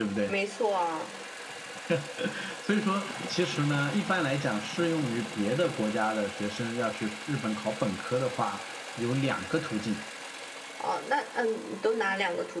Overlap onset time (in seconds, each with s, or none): none